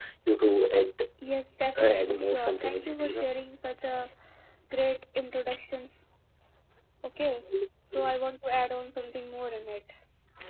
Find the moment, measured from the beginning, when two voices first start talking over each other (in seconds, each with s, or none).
1.8 s